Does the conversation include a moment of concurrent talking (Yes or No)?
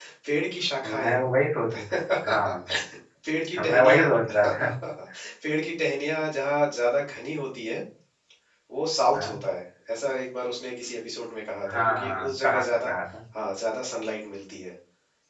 Yes